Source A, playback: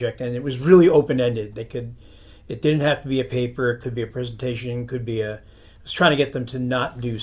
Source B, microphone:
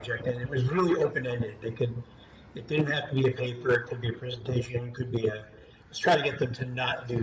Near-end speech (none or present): none